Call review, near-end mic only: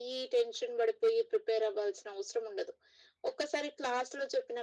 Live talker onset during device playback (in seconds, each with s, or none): none